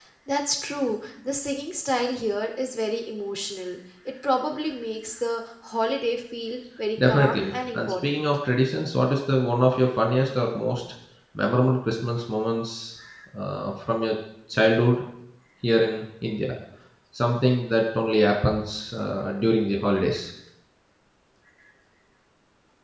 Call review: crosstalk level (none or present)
present